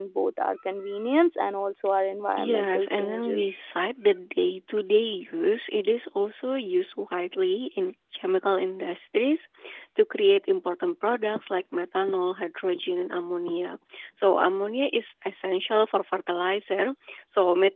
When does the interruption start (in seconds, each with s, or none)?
2.4 s